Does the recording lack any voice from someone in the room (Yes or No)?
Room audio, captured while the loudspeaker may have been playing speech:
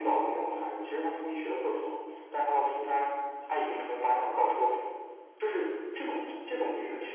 Yes